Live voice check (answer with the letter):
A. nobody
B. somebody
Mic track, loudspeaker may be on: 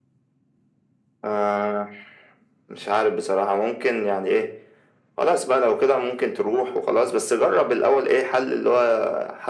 A